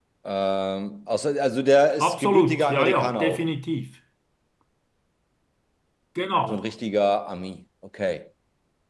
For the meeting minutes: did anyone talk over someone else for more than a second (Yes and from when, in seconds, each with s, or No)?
Yes, from 2.0 s